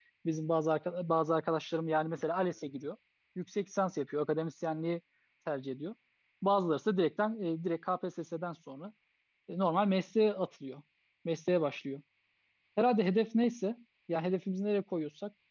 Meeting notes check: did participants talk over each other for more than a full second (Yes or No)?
No